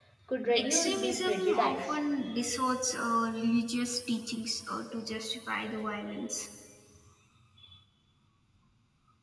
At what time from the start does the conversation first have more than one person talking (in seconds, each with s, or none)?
0.5 s